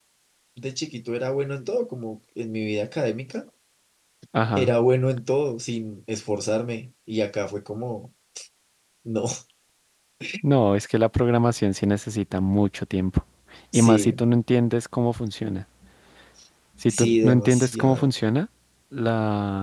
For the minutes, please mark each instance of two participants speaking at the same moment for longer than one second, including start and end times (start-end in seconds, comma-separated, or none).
16.9-18.1